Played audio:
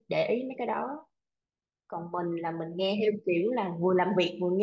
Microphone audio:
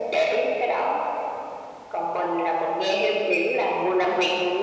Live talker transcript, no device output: none

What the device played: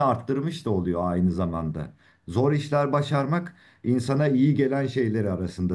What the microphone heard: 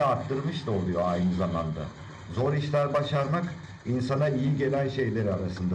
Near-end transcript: none

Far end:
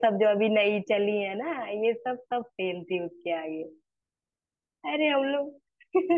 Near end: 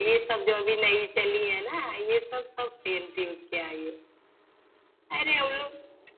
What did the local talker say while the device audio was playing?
none

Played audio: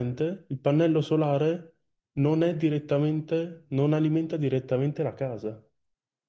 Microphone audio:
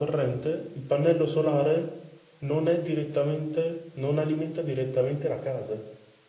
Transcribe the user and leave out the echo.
none

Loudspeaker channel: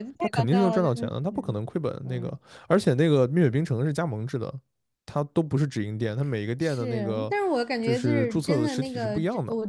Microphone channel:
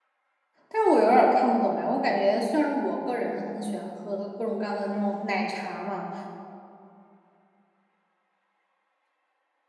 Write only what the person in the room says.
但是我有点儿看不懂哎，我感觉虽然我个人很喜欢喝各种各样的那种奶茶嘛，

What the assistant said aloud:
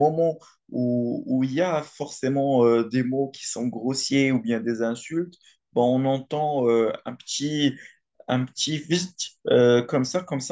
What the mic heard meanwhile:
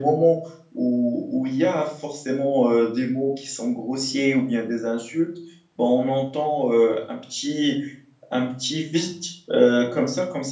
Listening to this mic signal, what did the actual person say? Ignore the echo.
none

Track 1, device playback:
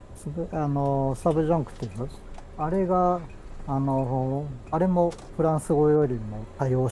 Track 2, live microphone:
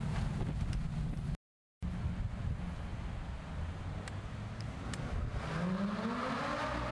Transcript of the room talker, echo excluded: none

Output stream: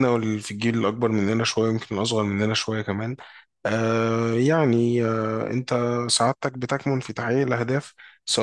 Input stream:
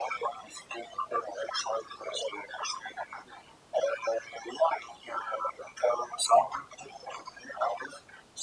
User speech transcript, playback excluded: none

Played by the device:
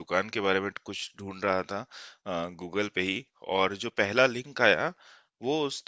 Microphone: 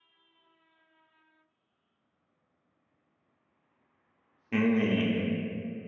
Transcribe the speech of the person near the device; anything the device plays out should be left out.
हुँ,

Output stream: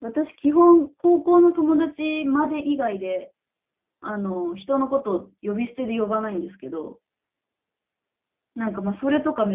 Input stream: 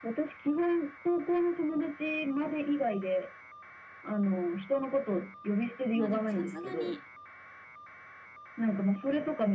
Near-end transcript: まあでもさすがに、

